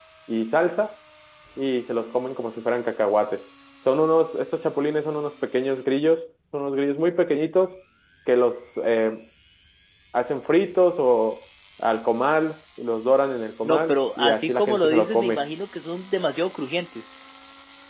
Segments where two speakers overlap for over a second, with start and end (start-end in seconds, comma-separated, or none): 13.6-15.5